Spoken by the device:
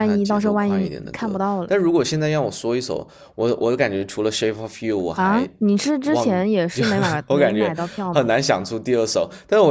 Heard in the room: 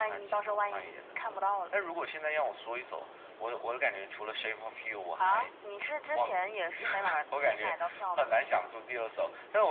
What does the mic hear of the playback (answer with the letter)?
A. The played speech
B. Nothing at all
A